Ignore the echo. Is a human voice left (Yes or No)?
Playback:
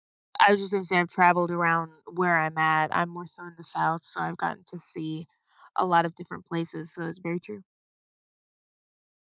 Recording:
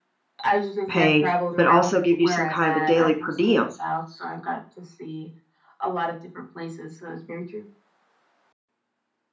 Yes